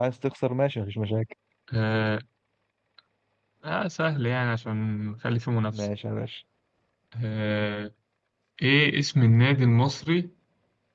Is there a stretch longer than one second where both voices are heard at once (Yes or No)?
No